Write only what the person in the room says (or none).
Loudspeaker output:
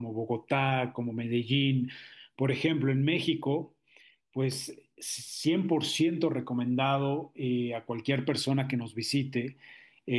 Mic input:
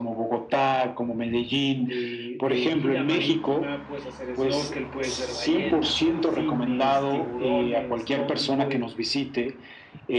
de- de vida marítima, puedes hacer snorkel, puedes ver ballenas, delfines, tiburones, todo tipo de,